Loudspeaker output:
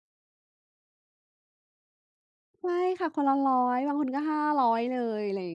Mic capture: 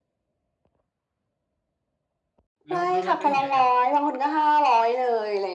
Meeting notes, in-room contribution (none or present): present